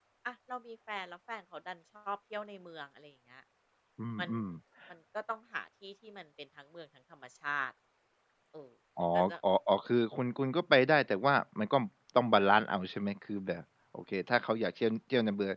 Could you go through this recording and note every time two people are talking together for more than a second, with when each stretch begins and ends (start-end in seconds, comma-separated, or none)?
none